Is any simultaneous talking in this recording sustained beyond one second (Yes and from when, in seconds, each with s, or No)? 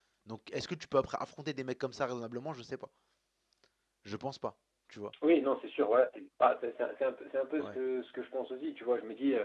No